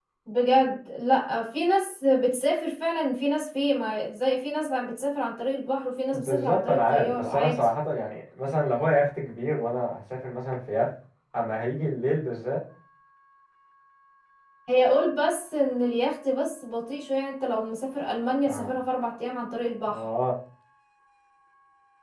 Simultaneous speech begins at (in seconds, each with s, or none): 6.1 s